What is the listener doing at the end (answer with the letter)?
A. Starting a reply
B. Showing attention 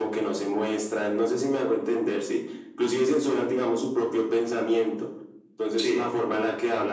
B